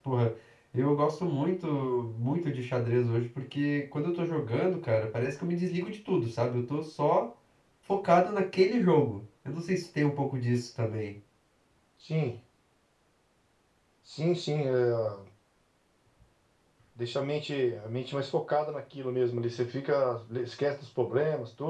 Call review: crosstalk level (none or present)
none